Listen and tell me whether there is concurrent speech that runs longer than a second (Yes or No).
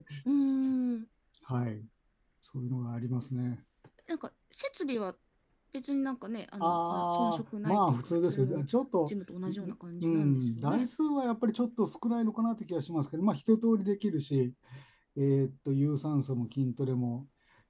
Yes